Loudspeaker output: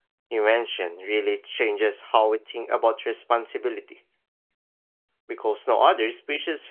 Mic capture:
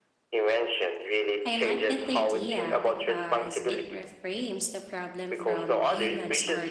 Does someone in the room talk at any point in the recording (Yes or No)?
Yes